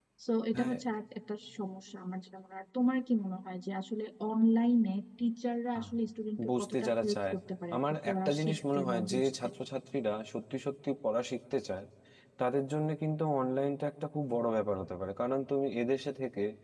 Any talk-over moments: Yes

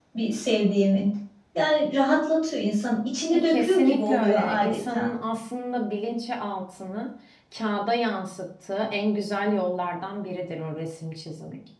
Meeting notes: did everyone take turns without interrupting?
No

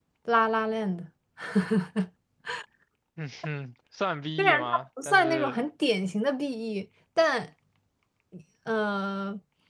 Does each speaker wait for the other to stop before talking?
No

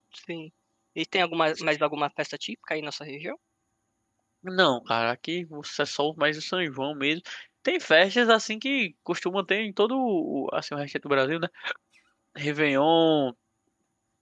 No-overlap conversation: Yes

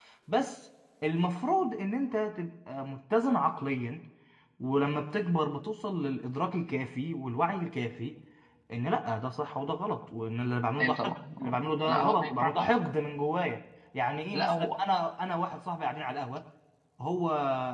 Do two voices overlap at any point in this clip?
Yes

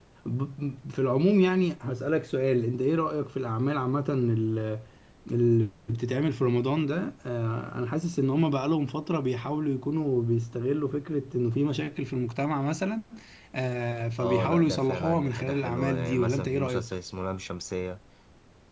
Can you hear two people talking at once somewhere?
Yes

